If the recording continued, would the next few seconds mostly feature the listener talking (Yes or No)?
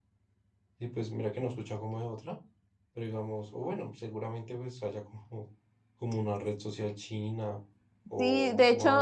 Yes